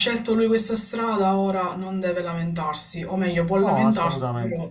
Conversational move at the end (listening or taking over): listening